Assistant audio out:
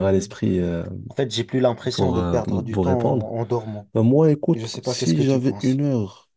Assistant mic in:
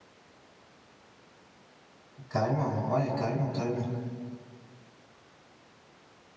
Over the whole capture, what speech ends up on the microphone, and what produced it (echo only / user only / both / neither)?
user only